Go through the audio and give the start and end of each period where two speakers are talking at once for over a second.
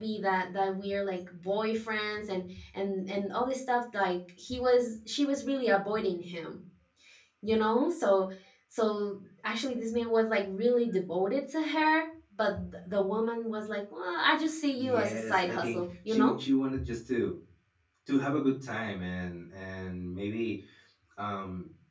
14.8-16.3

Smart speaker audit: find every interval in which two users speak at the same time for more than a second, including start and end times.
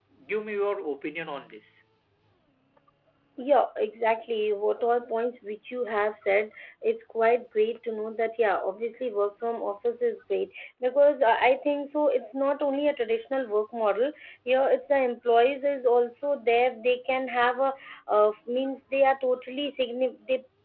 none

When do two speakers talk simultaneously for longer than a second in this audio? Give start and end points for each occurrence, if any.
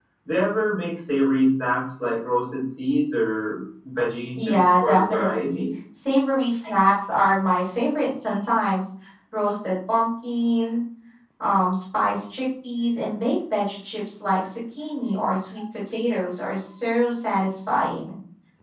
4.3-5.6

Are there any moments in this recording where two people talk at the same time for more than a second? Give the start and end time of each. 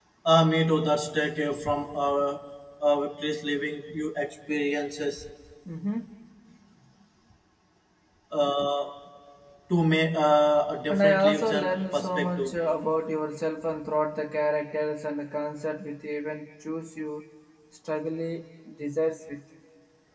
10.9-12.5

